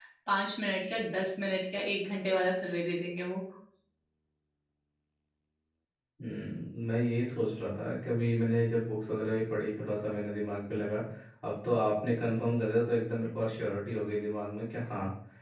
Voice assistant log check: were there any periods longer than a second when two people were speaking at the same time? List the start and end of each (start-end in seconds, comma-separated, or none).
none